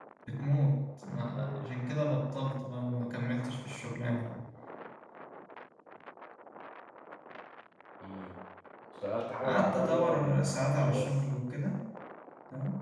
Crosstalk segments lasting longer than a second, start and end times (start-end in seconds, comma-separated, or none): 9.4-11.1